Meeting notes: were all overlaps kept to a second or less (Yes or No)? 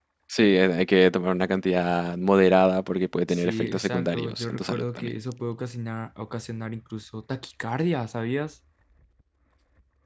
No